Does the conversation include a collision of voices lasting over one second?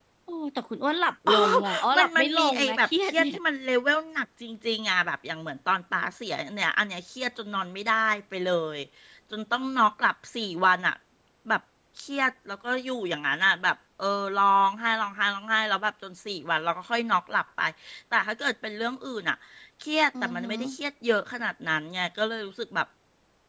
Yes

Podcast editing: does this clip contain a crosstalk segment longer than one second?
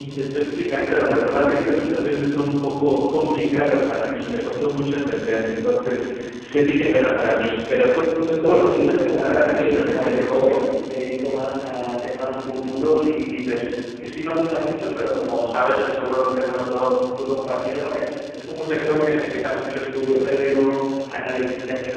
Yes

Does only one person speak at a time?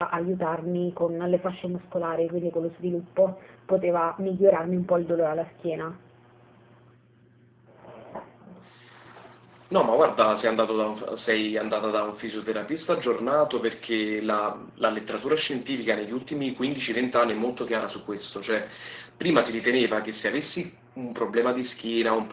Yes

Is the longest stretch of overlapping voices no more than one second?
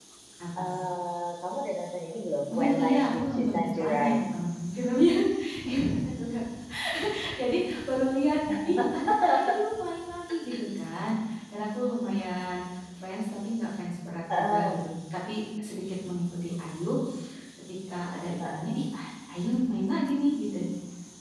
No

